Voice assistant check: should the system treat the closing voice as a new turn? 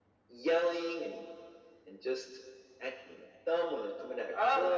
Yes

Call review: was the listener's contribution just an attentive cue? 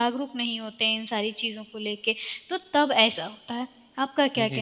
No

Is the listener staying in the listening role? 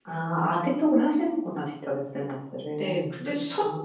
No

